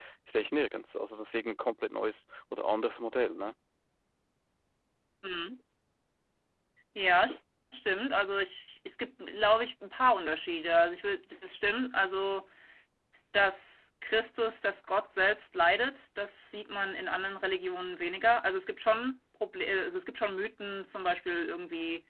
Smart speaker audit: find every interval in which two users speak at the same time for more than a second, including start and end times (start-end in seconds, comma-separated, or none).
none